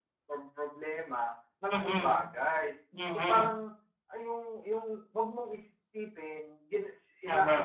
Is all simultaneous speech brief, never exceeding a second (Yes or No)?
Yes